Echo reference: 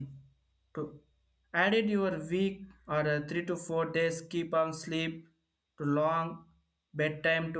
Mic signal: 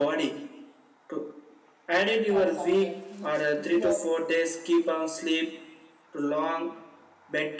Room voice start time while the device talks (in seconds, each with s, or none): 2.3 s